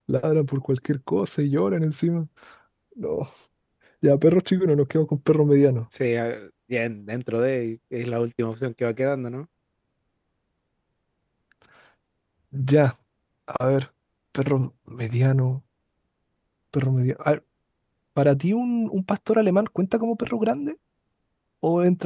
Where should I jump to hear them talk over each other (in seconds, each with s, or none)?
none